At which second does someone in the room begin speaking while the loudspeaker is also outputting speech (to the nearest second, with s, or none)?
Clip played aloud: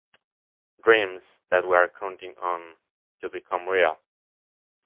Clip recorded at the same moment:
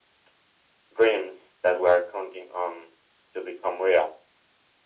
none